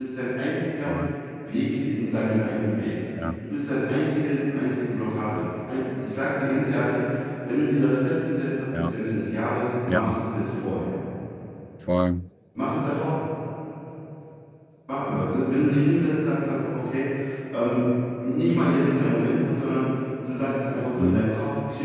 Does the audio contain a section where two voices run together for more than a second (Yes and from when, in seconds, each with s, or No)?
No